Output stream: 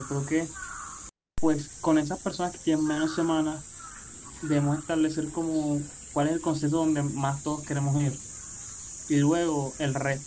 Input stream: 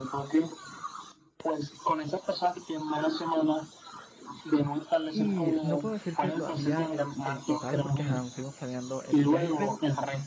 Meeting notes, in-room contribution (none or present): present